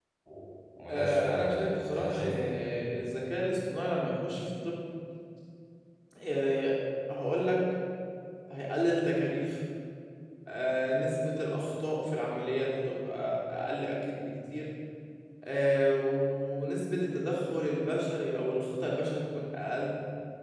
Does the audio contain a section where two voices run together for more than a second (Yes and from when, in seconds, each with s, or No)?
Yes, from 0.9 s